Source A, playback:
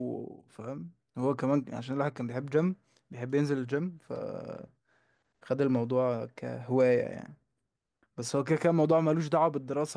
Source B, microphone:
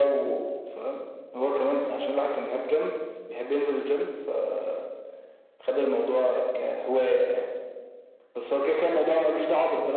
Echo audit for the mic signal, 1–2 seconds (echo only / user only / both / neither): echo only